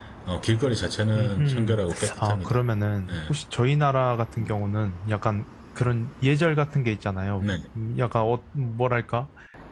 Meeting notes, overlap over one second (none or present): present